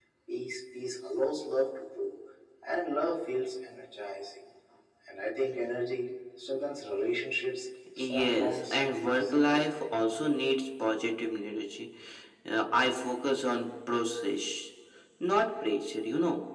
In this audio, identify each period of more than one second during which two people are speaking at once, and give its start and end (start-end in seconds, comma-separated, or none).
8.0-9.6